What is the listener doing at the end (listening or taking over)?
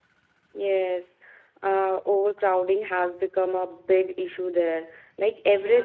listening